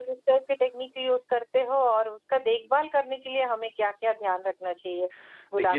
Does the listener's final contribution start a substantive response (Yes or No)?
Yes